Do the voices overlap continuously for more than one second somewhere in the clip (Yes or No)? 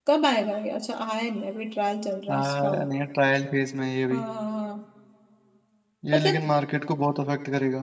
No